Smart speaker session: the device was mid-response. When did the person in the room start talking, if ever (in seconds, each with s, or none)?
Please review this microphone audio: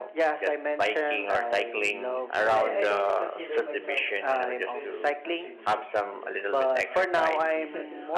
1.1 s